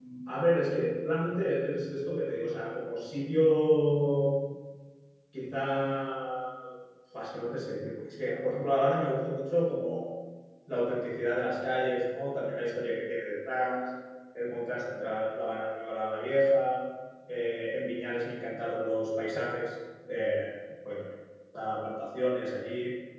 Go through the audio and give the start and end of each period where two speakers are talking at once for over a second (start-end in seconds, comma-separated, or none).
none